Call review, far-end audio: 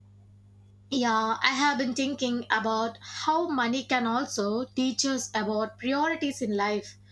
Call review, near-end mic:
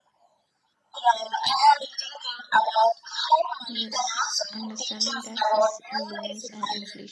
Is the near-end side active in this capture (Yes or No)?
Yes